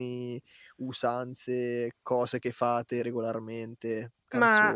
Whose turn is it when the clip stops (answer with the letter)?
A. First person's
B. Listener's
B